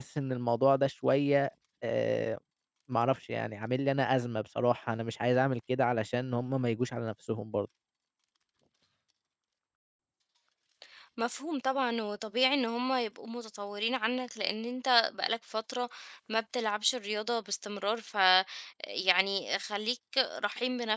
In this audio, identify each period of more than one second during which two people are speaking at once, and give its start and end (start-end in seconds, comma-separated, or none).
none